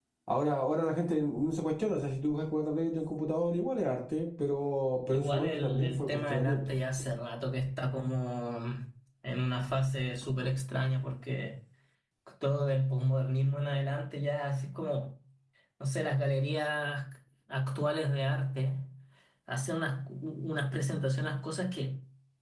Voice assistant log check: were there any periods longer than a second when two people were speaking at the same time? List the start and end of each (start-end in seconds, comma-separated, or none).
5.1-6.6